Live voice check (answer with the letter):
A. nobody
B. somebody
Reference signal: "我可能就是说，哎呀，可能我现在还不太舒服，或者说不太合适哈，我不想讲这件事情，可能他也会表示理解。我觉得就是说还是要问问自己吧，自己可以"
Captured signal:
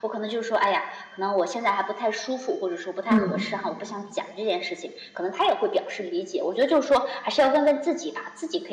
B